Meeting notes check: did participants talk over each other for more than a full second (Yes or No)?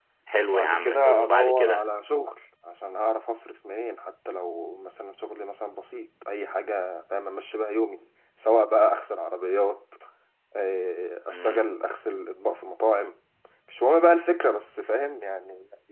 Yes